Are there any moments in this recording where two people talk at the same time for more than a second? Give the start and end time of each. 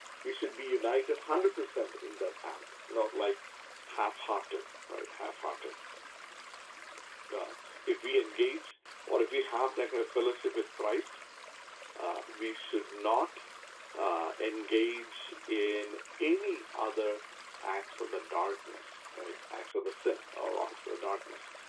none

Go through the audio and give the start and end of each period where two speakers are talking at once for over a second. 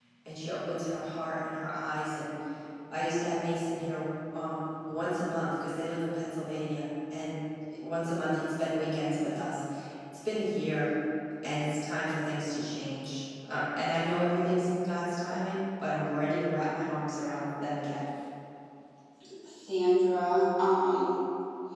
none

